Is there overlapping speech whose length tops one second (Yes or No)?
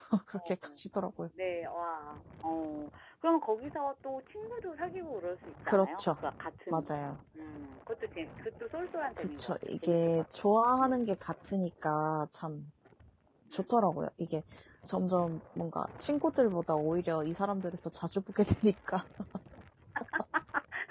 Yes